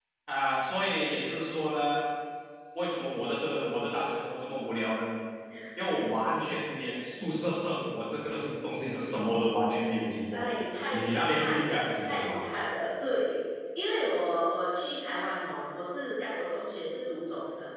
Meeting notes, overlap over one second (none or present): present